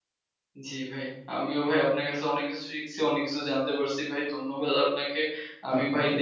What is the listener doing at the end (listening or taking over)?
listening